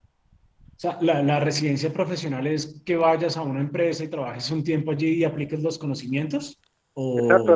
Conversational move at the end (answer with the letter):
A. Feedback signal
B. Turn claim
B